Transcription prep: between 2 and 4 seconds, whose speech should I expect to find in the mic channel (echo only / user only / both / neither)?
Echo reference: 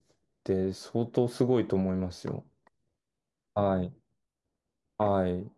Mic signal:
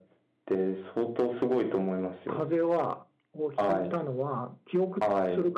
both